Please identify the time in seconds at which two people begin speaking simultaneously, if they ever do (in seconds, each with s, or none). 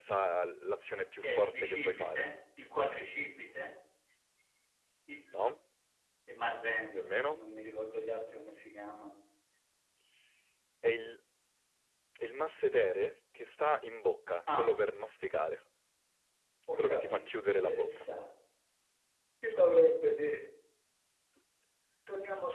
0.9 s